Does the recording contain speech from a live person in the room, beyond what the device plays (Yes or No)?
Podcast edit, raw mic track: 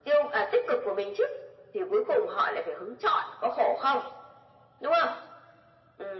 No